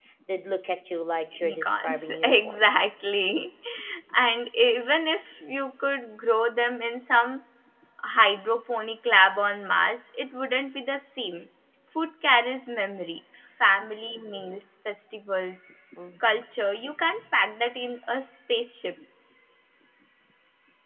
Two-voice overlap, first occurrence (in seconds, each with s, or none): 1.4 s